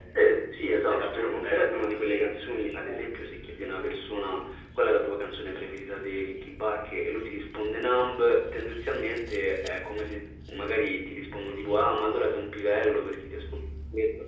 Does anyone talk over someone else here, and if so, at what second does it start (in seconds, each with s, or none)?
0.9 s